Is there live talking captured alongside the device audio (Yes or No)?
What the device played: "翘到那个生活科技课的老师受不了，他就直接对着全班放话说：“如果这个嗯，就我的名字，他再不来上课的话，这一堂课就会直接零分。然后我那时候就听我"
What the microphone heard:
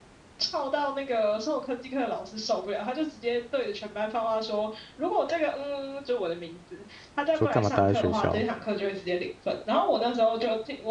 Yes